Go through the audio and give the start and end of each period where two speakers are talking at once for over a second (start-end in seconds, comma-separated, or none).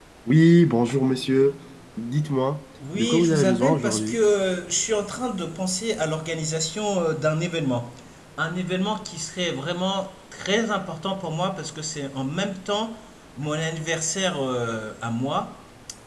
3.0-4.2